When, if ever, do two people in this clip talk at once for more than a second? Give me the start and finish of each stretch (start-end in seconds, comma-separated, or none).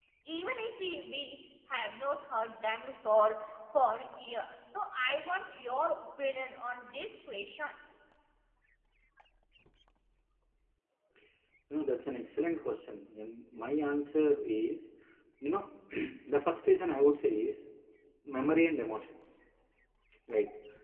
none